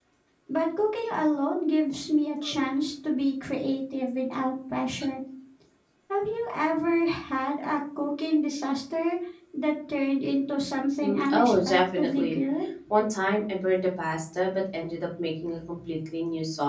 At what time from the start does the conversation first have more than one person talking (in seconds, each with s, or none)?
11.0 s